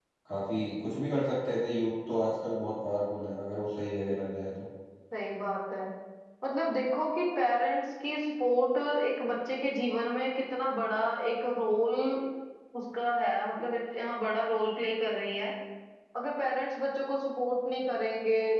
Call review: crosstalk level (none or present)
none